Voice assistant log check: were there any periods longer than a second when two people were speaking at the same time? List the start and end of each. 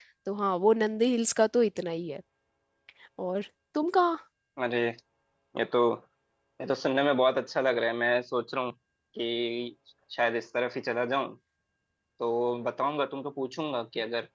none

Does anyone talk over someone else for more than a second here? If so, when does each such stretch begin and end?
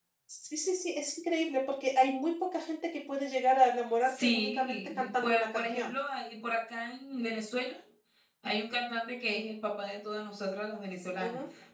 4.0-5.9

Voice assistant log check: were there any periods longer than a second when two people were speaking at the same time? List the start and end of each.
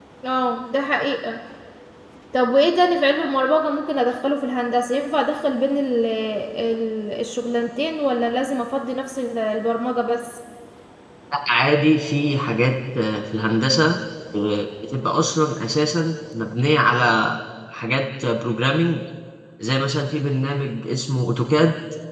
none

